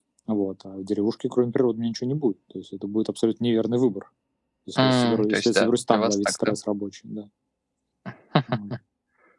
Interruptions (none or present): present